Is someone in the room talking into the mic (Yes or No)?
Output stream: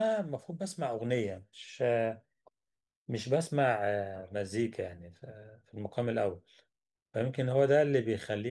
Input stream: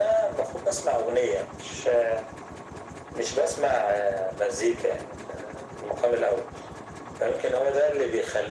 No